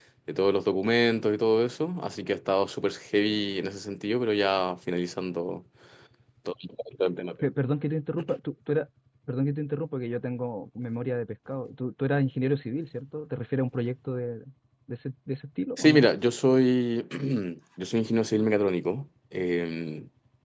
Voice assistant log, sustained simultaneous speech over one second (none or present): none